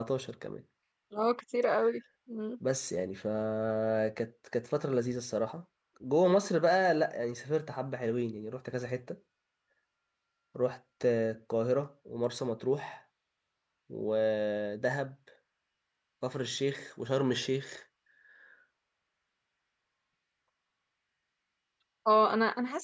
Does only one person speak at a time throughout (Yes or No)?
Yes